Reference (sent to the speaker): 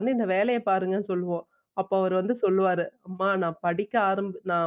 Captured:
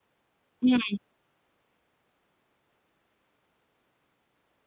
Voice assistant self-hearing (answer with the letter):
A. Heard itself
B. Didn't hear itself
B